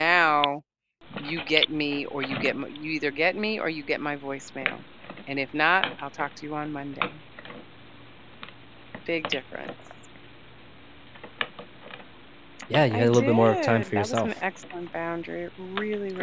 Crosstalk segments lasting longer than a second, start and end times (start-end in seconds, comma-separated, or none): 12.9-14.3